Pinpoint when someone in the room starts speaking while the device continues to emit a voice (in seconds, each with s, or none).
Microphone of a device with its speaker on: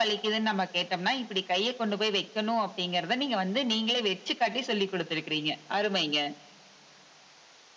none